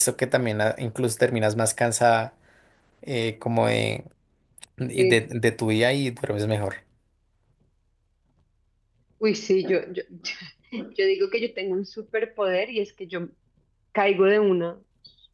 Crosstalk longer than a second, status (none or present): none